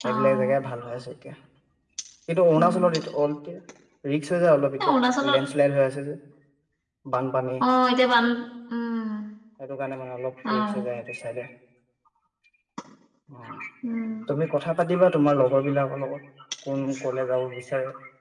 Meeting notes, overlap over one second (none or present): none